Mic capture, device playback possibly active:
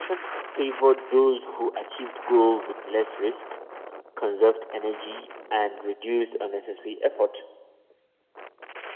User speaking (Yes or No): No